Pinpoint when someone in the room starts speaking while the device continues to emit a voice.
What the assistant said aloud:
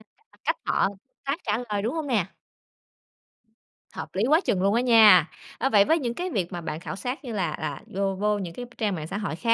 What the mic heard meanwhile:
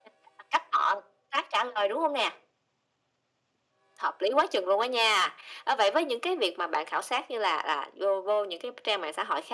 none

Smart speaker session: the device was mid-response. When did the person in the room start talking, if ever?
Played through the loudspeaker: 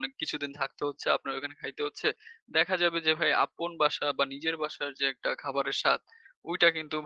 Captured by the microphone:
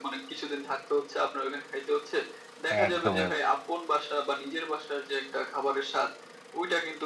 2.7 s

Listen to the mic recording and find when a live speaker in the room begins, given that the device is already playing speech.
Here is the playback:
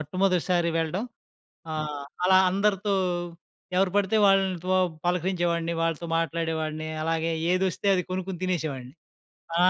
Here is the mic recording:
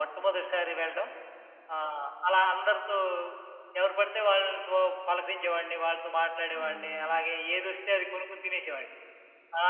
6.5 s

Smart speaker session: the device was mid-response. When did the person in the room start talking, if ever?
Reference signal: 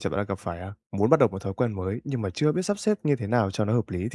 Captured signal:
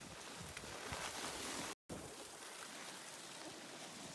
none

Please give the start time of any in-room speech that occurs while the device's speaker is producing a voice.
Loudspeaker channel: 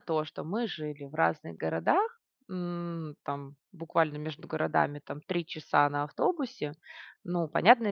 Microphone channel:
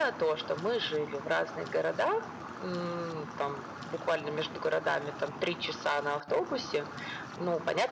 none

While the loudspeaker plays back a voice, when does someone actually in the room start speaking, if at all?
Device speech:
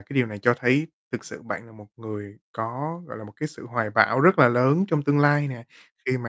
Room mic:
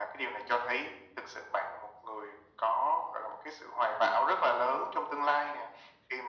none

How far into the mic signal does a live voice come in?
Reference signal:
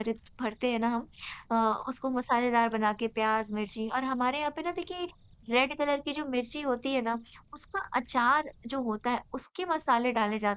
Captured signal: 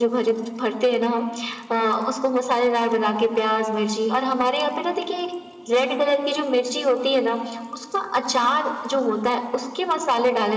none

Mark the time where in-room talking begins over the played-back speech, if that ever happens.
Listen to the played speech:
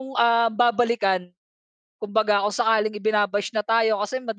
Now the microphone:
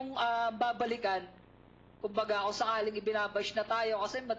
none

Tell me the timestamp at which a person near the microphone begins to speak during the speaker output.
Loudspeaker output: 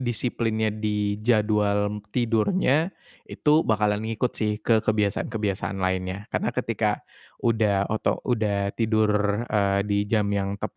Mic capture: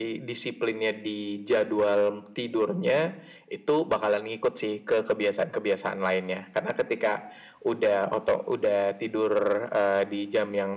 none

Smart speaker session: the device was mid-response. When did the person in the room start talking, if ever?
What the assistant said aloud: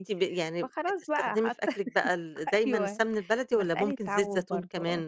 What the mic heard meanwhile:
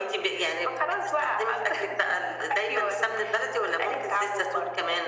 none

